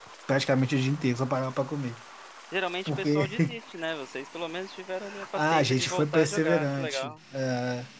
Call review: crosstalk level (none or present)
present